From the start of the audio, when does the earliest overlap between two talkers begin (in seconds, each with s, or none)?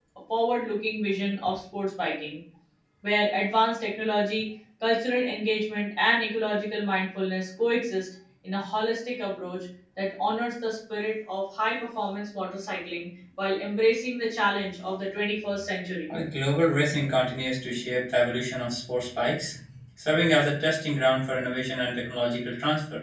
none